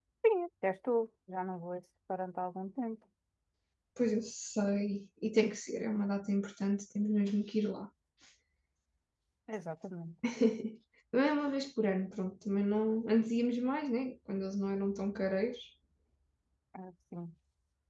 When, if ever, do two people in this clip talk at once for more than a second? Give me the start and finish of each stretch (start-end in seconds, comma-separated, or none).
none